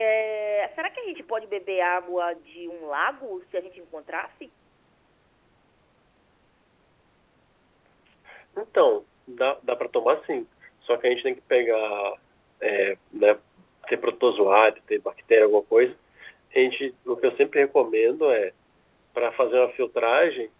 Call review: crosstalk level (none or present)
none